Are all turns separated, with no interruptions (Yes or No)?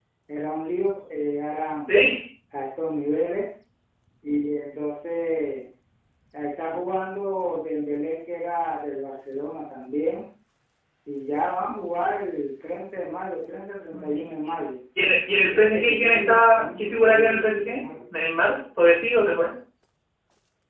No